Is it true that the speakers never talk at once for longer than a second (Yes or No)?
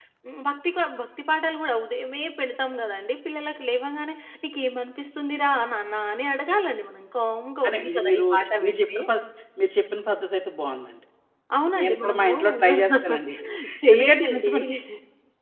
No